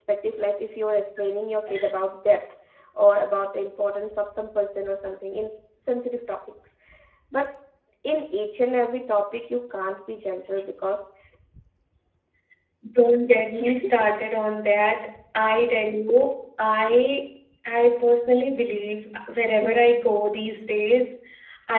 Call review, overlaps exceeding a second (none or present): none